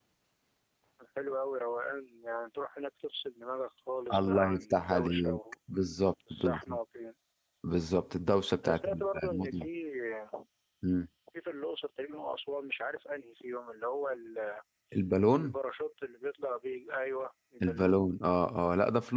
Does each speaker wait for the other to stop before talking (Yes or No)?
No